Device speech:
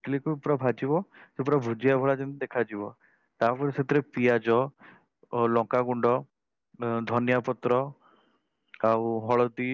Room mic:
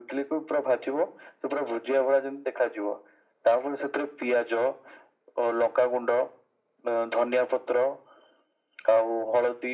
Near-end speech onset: none

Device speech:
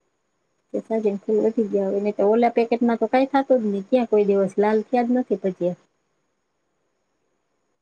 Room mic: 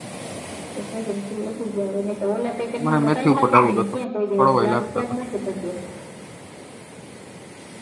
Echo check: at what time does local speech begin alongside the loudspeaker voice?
2.8 s

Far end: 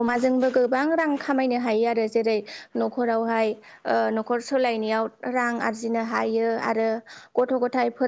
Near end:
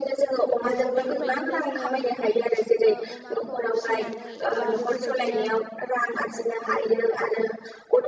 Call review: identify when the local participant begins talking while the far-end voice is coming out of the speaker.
0.7 s

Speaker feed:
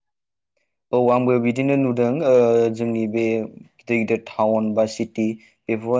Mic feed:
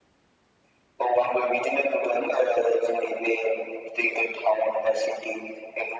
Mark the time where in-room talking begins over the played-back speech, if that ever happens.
none

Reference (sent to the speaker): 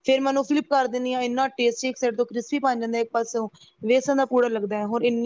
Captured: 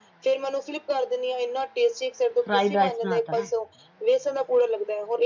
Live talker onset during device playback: 2.4 s

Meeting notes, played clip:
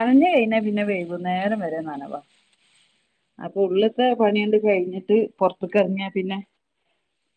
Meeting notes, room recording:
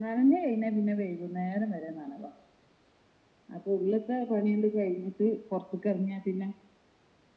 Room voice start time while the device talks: none

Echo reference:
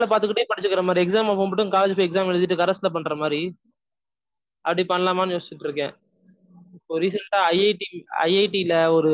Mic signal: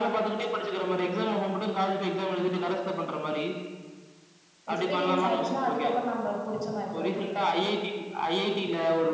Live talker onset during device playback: 4.7 s

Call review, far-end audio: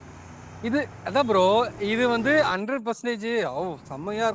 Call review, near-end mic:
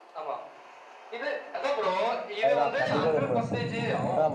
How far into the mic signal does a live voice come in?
2.5 s

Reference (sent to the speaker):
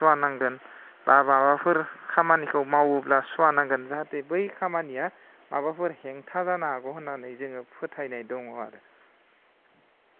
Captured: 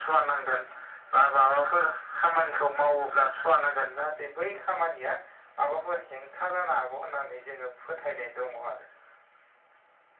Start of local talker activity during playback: none

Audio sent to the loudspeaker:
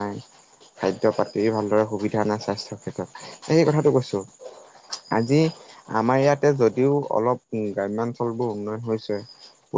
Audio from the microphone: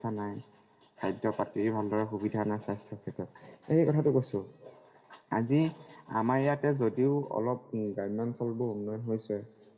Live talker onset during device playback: none

